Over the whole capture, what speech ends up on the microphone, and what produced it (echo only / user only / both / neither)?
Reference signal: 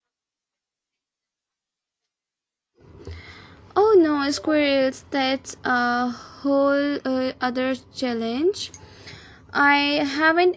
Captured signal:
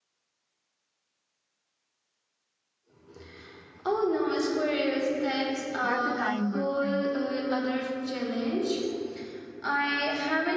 both